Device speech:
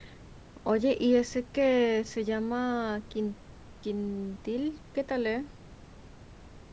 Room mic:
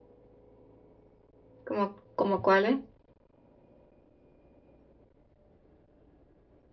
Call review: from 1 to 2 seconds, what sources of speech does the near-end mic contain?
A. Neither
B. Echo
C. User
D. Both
C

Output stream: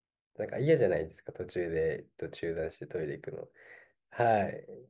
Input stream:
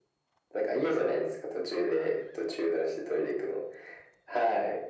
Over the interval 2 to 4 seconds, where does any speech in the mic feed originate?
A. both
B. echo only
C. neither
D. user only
B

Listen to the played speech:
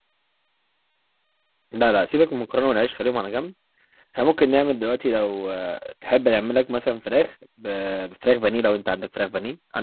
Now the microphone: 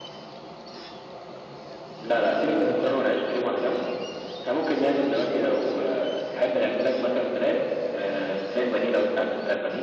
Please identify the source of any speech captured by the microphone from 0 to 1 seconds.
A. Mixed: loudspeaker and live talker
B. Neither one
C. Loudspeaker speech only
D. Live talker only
B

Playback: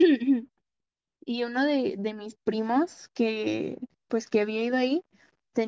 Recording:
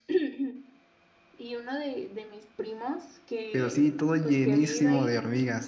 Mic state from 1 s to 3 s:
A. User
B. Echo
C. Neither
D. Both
B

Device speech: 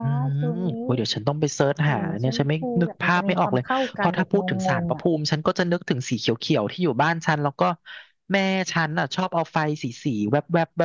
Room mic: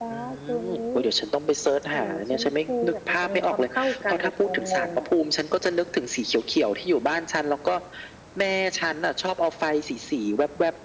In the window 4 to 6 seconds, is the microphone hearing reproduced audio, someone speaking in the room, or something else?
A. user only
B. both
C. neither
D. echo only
D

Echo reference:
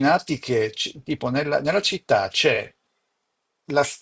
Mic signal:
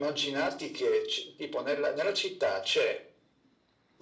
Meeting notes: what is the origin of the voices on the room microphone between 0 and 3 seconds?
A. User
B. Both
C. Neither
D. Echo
D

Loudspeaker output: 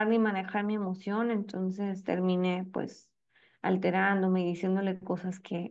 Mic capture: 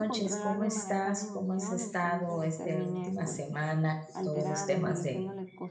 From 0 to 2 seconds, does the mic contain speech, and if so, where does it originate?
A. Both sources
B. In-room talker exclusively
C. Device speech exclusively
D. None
A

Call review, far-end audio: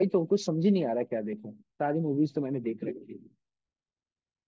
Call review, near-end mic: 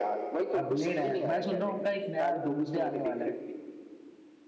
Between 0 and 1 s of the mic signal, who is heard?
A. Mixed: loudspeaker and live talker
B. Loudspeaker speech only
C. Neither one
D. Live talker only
A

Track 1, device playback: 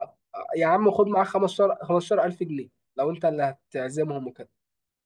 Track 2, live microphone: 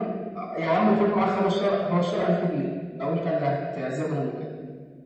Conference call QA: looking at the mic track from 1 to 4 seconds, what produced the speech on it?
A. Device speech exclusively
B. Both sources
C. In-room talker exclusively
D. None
A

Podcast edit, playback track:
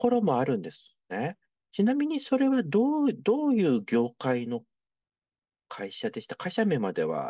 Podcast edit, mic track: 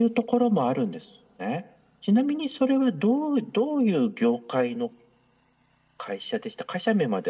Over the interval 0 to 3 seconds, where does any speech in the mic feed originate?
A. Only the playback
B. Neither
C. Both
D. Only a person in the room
A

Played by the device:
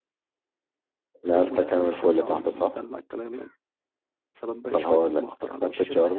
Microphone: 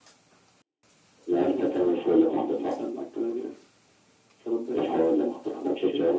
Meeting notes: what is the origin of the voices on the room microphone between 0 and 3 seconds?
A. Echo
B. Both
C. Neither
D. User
A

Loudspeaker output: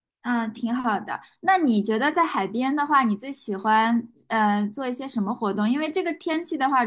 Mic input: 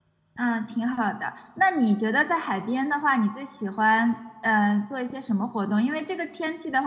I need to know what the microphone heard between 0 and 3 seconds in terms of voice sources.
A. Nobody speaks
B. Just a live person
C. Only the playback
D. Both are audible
C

